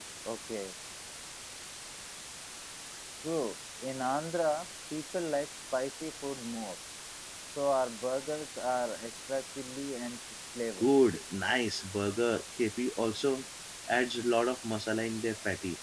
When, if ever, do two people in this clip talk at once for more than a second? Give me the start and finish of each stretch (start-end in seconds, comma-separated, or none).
none